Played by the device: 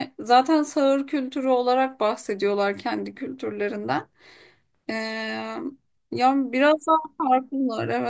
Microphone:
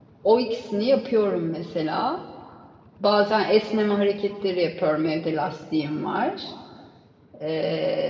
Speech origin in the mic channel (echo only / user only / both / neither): user only